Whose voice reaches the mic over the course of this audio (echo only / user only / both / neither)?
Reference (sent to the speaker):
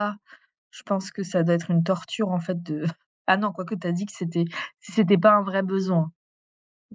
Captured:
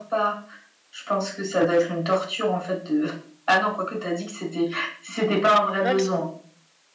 both